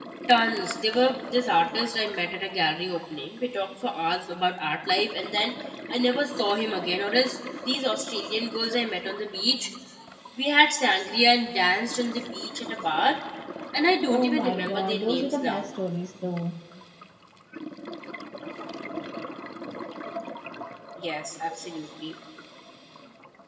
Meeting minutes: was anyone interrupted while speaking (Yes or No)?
Yes